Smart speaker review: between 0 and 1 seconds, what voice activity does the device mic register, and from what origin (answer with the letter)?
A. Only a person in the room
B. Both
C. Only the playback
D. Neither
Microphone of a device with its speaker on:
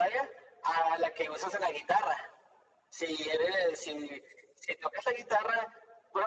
C